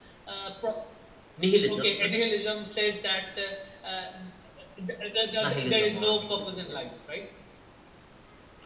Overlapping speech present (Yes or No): Yes